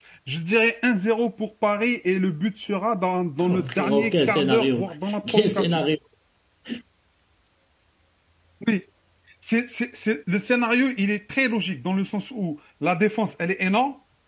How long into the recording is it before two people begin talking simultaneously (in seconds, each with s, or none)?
3.5 s